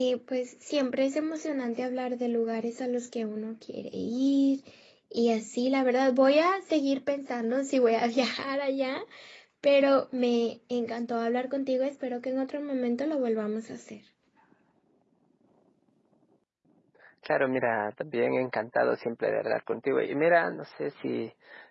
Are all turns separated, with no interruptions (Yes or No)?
Yes